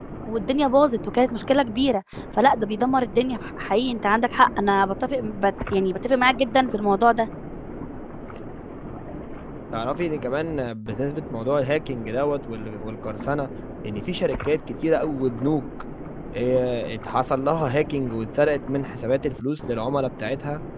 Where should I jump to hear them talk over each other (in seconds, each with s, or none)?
none